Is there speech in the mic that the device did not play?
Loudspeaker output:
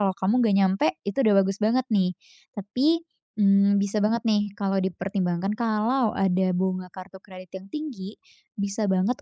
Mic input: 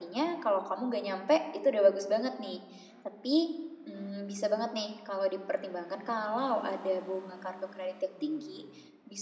No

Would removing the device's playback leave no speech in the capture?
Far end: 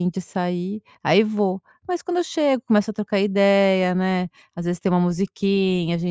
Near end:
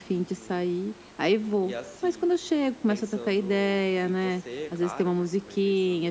No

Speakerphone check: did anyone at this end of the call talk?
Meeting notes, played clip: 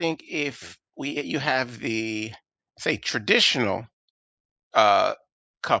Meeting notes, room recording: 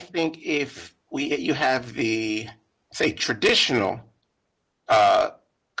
No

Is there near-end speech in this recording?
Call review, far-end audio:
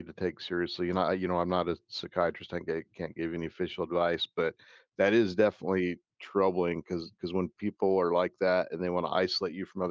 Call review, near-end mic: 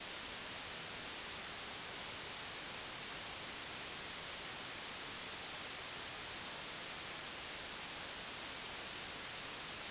No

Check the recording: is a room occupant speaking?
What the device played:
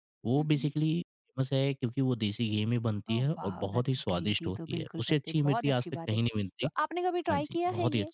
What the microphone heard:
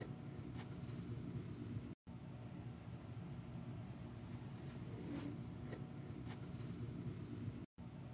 No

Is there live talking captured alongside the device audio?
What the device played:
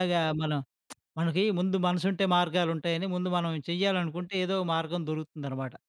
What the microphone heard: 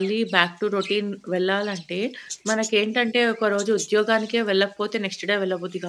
Yes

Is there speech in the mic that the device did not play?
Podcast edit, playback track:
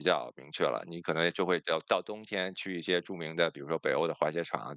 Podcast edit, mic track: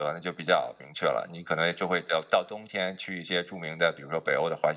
No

